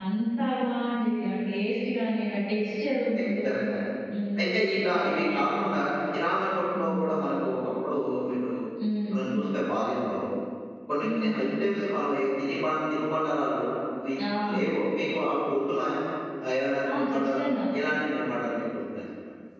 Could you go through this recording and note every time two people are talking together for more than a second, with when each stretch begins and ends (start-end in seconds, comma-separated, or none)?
4.4-5.7